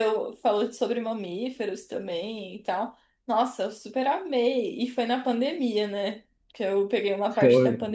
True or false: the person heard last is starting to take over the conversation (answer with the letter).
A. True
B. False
A